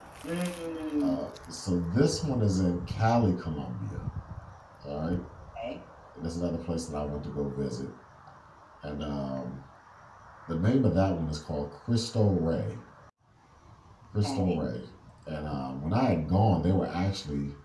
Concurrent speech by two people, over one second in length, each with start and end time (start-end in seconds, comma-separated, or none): none